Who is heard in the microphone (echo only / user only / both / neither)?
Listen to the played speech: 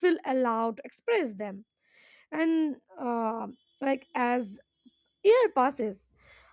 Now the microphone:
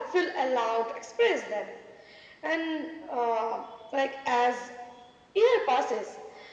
echo only